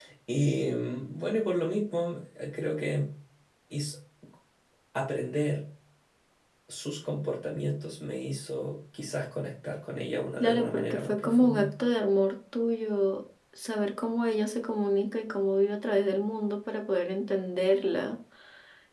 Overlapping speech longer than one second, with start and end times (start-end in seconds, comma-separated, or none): 10.4-11.7